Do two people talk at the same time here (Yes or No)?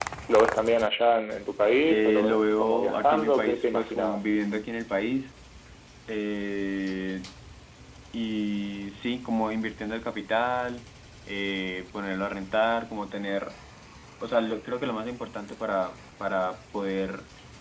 Yes